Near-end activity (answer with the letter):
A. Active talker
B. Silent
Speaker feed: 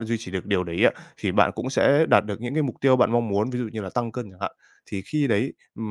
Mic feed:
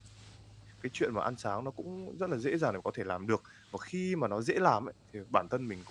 A